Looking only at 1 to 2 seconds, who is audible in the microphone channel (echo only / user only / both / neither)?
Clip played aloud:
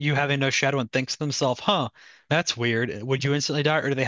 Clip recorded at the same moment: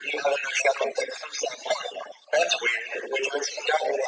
echo only